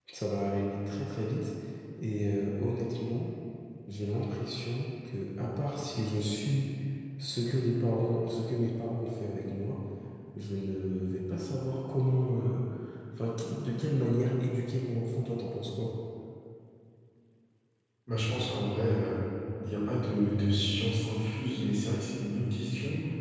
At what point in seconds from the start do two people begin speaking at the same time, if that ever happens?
none

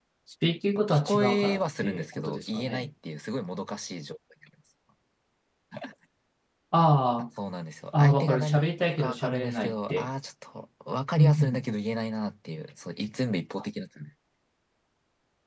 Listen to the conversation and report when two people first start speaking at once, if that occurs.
0.9 s

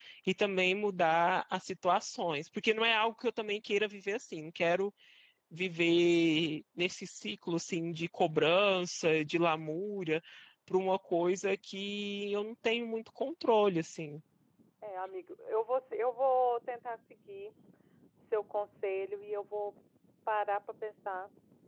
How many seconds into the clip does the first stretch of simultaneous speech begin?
none

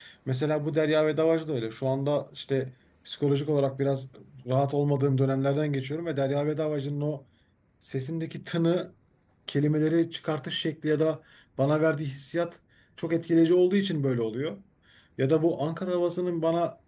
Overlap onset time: none

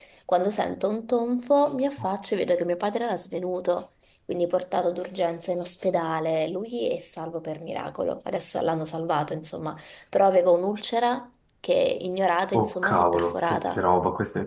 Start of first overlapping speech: 12.5 s

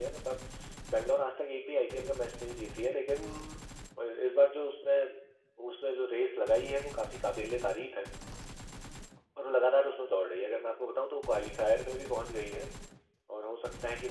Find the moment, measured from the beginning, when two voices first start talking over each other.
none

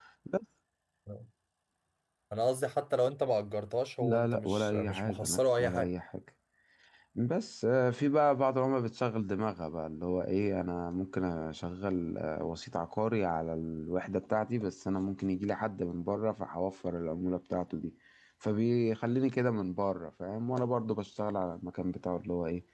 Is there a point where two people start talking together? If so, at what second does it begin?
4.0 s

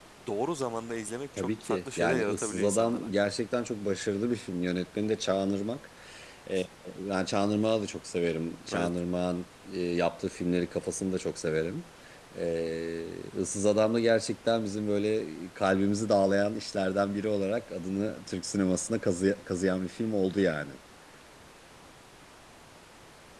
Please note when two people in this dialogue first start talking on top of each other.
1.4 s

